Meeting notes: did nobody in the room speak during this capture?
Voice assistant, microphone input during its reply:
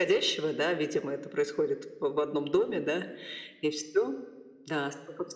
Yes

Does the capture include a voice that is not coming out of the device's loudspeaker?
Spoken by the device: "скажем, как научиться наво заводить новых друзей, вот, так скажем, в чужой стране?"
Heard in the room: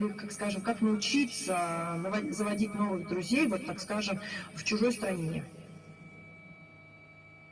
No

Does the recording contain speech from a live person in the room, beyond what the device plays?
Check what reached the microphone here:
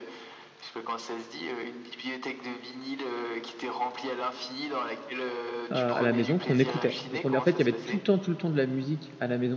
Yes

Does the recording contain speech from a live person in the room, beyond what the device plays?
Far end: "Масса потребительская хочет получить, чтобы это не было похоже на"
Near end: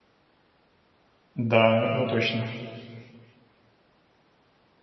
Yes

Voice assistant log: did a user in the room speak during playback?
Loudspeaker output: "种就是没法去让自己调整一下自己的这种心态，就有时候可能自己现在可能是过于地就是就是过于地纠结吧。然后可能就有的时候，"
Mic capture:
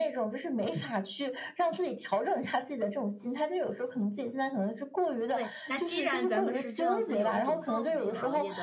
Yes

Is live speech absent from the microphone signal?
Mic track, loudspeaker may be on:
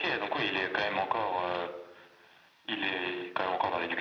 Yes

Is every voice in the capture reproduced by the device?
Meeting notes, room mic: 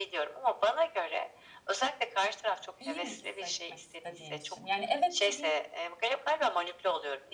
No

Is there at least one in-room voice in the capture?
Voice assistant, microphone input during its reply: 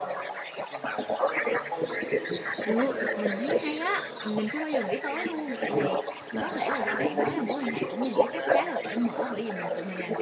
Yes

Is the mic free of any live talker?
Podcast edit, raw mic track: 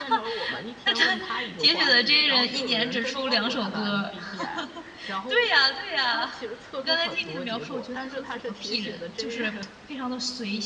No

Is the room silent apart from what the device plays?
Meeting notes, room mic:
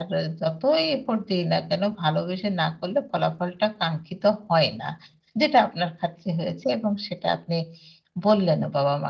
Yes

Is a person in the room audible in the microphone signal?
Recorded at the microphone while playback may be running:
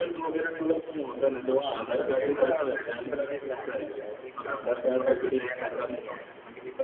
No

